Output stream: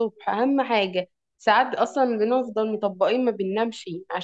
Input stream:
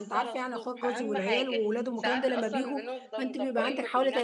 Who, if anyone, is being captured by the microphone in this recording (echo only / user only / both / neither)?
both